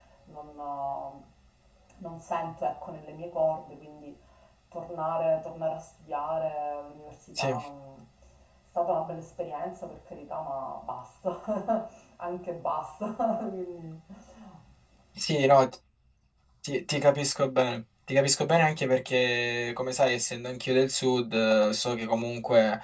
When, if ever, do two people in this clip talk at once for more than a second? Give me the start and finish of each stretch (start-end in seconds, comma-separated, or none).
none